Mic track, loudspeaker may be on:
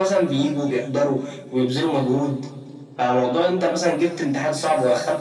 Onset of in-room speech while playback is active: none

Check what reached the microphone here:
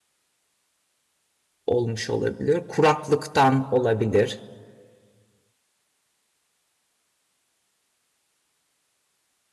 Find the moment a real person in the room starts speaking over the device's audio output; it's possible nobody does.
1.7 s

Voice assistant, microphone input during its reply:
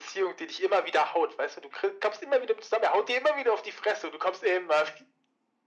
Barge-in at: none

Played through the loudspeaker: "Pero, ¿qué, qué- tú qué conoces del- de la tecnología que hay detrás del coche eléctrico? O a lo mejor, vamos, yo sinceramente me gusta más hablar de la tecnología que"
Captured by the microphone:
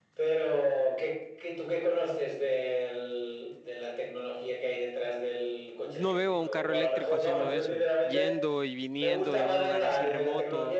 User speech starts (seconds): 5.8 s

